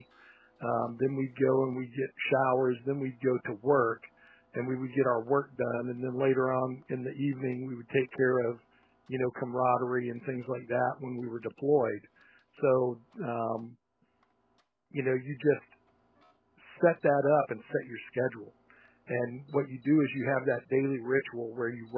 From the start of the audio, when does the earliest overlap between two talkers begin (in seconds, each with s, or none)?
none